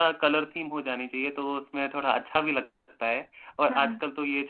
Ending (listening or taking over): listening